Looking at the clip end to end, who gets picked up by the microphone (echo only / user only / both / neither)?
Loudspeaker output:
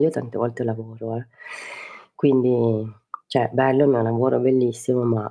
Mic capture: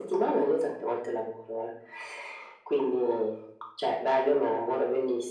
echo only